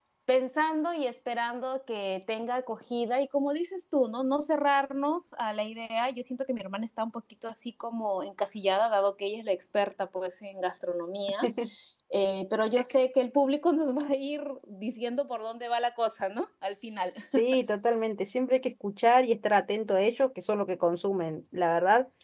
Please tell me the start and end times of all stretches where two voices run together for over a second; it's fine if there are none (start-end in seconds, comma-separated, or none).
none